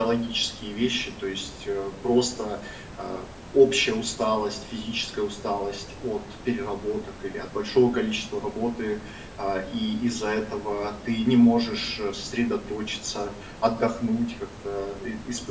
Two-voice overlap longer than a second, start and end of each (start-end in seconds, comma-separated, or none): none